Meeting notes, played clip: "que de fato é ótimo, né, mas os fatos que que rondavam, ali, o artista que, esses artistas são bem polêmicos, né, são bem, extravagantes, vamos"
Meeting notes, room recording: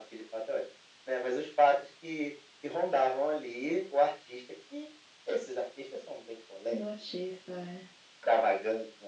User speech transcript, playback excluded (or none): Do artista, é.